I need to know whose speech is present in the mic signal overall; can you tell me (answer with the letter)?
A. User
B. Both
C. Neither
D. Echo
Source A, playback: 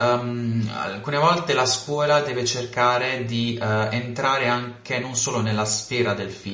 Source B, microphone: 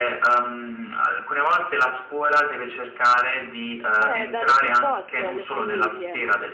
B